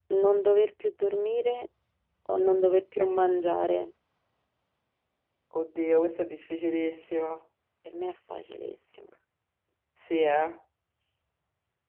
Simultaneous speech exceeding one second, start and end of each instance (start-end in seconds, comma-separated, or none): none